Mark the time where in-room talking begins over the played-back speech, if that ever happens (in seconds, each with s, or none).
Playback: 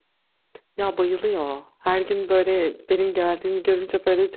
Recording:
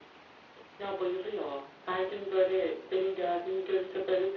none